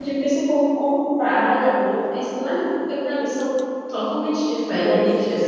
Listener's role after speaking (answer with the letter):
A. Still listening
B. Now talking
B